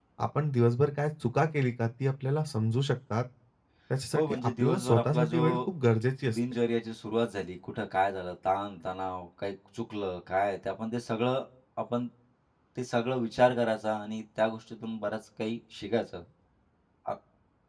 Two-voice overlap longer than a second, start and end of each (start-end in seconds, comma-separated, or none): 4.1-5.4